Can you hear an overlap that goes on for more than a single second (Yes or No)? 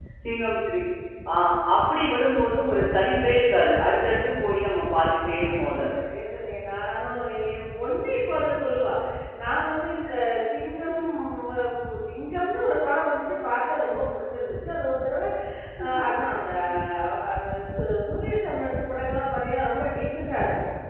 No